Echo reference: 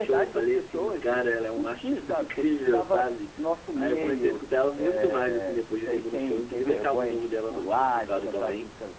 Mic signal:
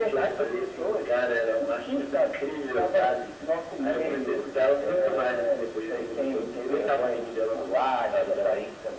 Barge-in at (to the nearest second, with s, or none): none